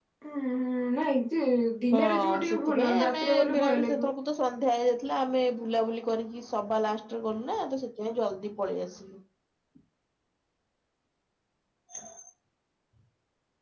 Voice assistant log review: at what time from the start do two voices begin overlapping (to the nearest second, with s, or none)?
2 s